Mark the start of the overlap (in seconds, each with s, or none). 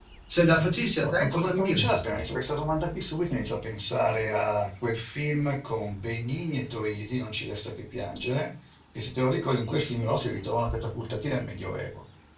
1.0 s